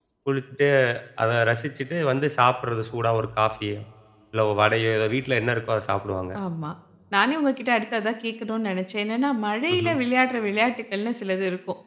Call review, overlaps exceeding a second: none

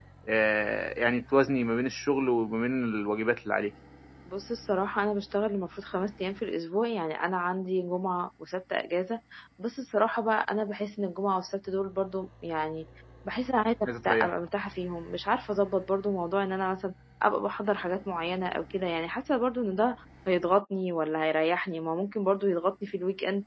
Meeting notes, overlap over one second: none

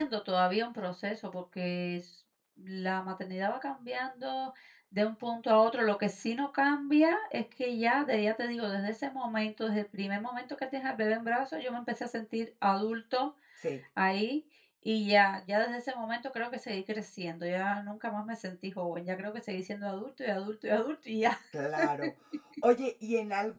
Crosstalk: none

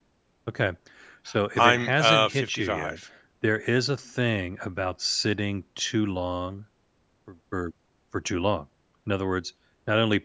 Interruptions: present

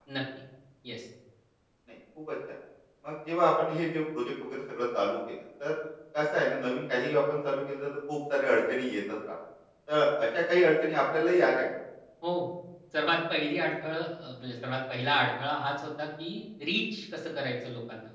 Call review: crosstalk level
none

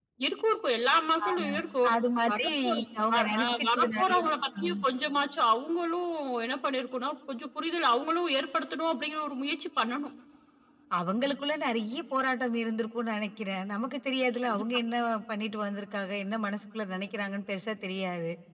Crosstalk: present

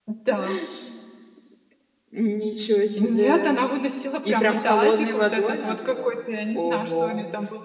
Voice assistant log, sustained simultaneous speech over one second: present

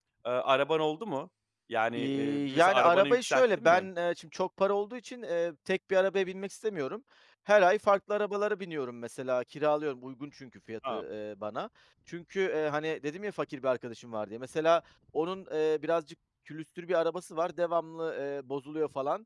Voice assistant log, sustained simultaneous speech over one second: present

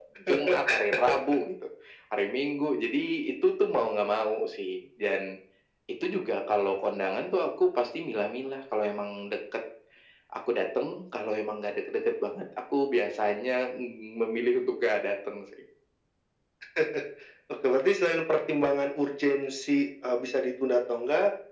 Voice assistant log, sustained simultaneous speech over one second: none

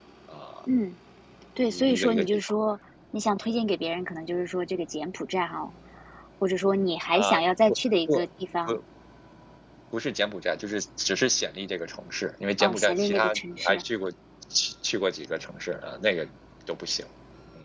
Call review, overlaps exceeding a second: present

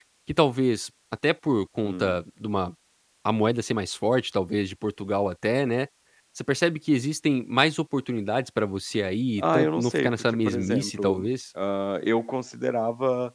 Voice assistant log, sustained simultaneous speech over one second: present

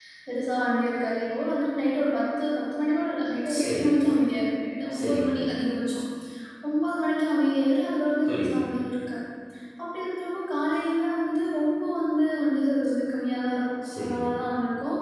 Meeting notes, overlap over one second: none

